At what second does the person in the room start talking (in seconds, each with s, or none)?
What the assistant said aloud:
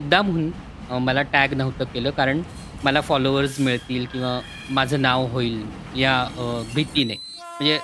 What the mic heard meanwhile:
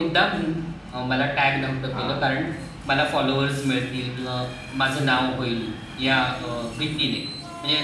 1.9 s